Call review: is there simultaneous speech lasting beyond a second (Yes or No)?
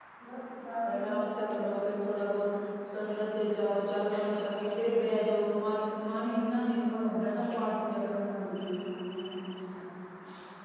No